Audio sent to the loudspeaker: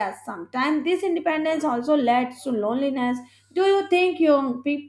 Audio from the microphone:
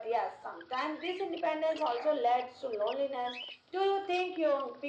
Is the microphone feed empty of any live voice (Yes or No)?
Yes